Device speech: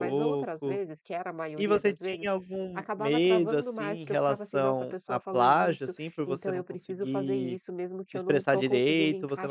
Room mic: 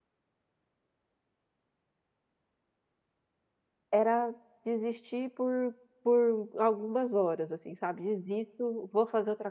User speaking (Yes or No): Yes